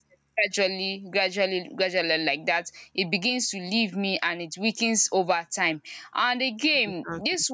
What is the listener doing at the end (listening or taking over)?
listening